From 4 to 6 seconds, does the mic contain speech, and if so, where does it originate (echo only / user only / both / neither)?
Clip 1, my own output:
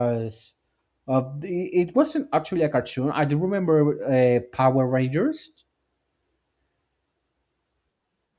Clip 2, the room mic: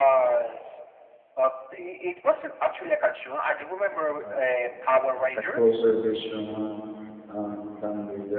both